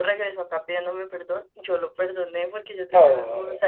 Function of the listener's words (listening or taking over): listening